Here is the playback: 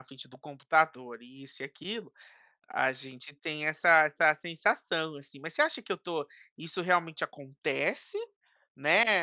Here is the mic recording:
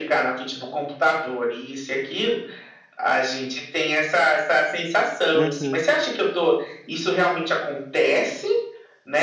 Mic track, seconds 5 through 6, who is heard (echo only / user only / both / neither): both